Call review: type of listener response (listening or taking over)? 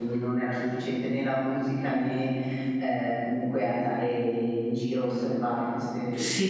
taking over